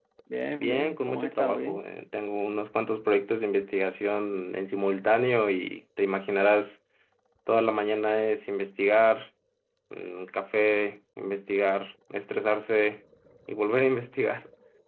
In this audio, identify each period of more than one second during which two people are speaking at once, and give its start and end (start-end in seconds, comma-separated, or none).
0.6-1.8